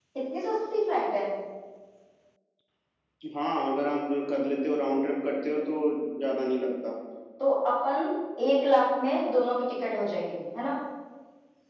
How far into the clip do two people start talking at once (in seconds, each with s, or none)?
none